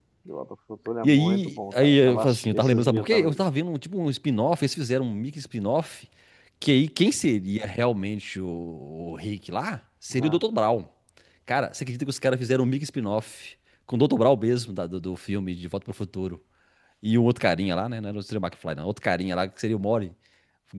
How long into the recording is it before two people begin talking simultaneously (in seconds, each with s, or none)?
1.0 s